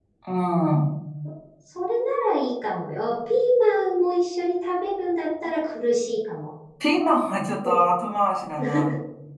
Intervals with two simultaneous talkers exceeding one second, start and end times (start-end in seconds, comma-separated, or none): none